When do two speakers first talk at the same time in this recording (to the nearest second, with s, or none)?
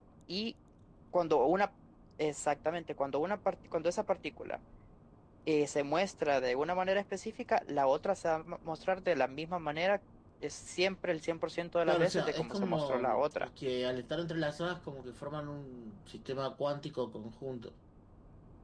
12 s